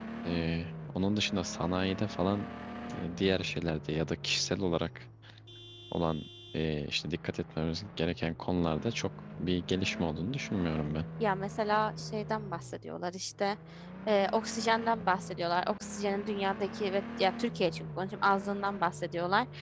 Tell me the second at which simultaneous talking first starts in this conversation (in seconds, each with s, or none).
none